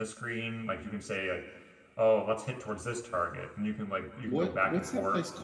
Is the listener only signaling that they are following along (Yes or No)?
No